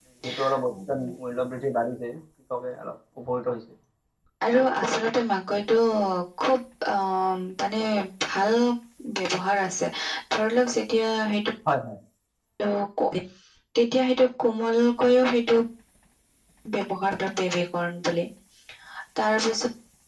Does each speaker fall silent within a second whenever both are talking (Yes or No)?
Yes